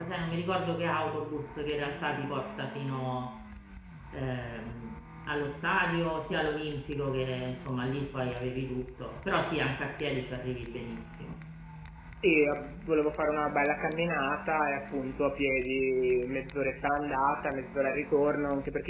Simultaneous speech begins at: none

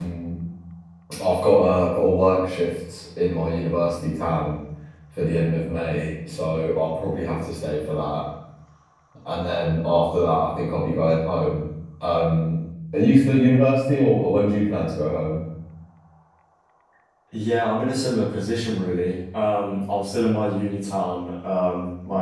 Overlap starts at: none

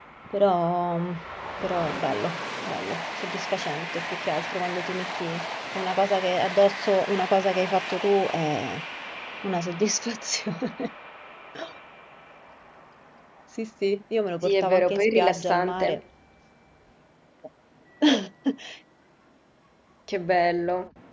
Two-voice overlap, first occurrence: 14.4 s

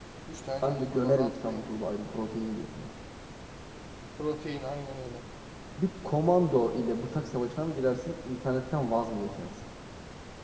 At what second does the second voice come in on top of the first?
0.6 s

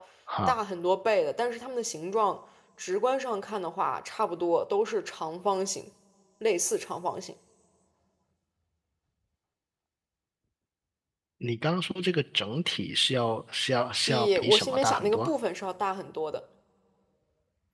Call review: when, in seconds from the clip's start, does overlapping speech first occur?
14.1 s

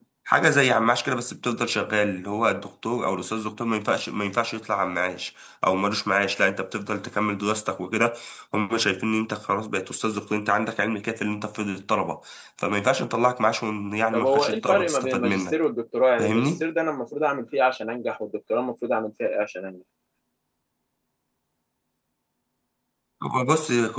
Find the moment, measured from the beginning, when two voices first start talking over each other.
14.1 s

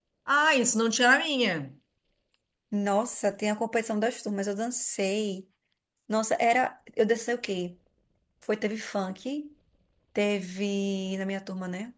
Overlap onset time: none

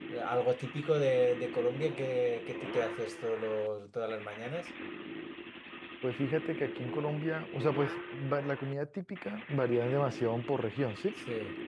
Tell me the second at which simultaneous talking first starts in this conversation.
none

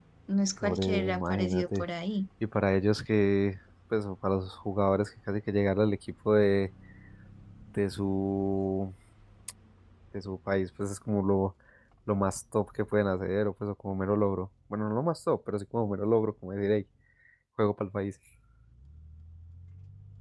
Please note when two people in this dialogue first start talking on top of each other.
0.6 s

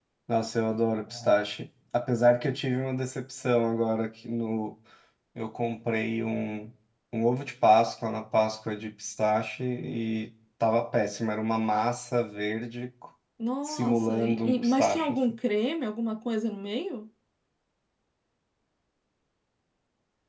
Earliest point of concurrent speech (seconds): 13.6 s

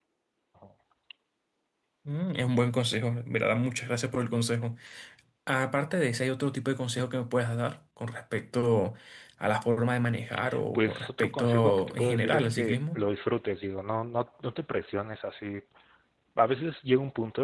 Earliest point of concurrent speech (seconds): 10.7 s

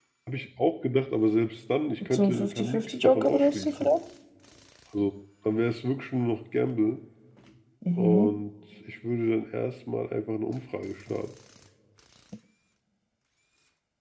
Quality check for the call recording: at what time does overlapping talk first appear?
2.1 s

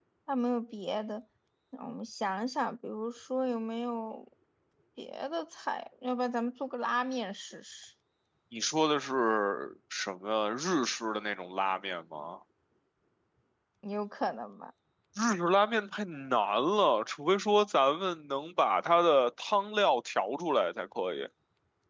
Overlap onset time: none

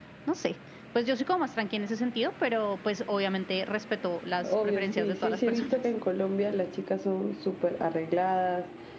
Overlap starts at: 4.4 s

